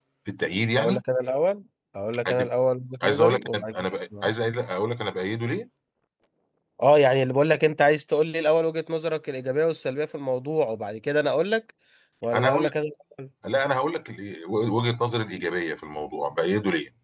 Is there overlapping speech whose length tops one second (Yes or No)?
Yes